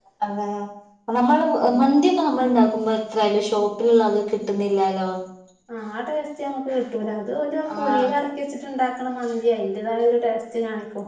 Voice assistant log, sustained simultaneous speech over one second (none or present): none